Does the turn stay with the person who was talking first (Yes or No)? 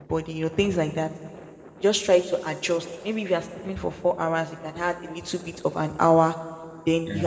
Yes